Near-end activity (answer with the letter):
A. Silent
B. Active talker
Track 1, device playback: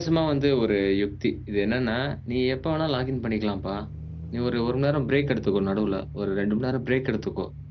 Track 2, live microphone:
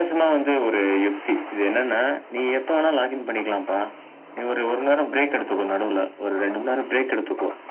A